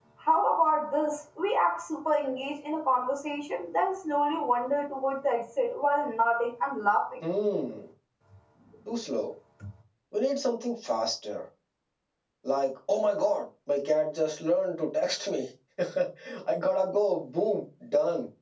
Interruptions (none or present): none